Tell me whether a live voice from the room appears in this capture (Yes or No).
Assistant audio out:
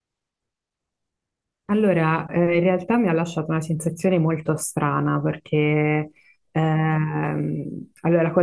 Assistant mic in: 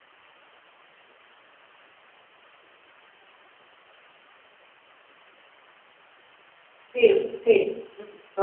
Yes